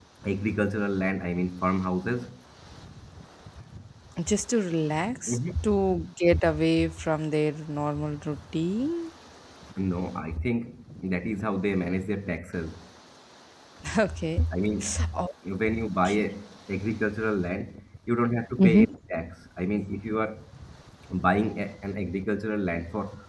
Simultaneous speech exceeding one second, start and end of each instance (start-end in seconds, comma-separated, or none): none